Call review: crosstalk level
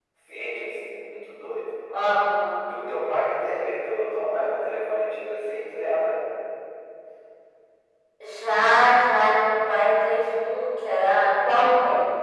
none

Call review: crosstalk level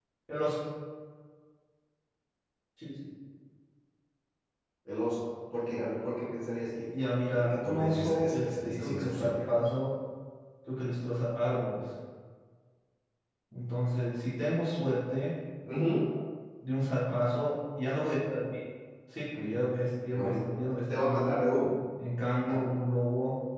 present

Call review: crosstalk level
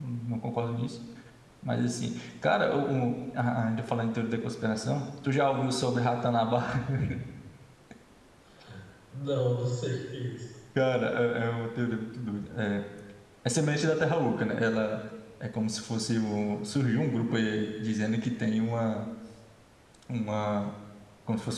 none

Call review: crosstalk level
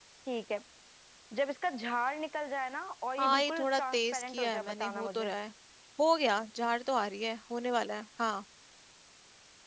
present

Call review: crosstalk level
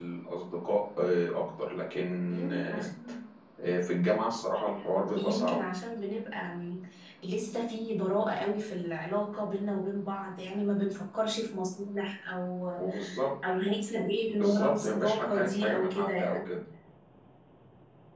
present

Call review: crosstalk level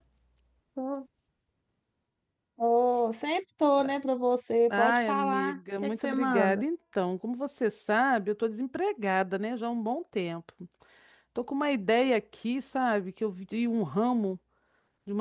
present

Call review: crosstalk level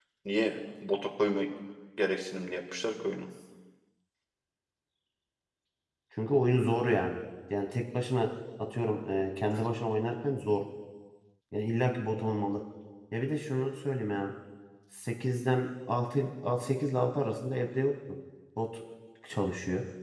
none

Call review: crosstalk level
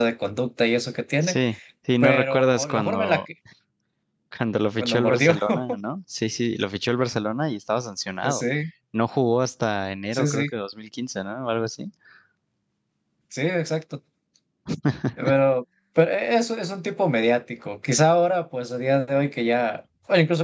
present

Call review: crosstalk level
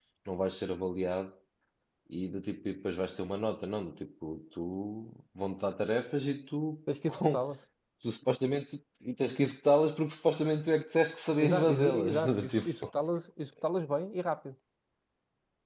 present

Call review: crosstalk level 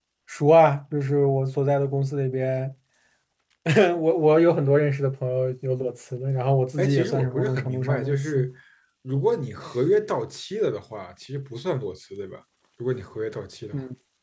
present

